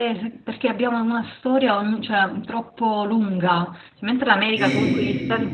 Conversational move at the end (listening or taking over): listening